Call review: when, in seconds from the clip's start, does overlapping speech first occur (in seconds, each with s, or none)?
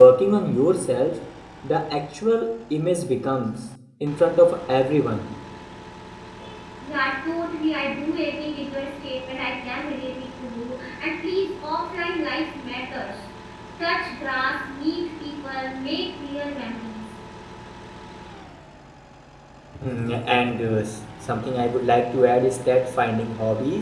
none